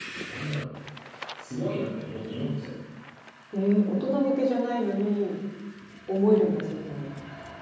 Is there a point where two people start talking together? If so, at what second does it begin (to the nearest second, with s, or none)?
none